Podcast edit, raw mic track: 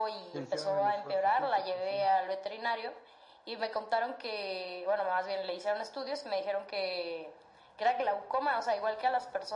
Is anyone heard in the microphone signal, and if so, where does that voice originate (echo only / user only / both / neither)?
both